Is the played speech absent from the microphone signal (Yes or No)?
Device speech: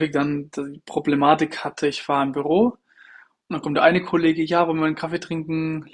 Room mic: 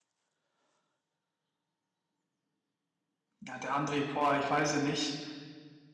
Yes